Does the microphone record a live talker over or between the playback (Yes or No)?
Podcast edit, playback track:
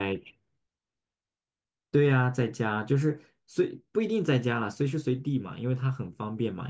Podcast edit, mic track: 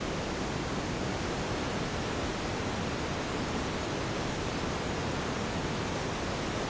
No